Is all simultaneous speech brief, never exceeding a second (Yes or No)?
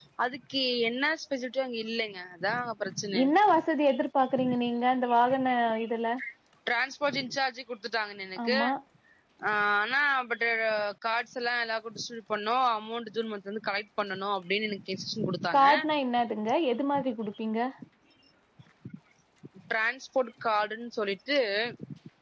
Yes